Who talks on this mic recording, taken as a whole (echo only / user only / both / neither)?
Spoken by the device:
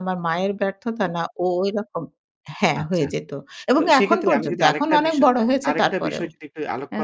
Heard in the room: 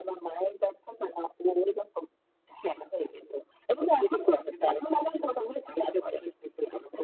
echo only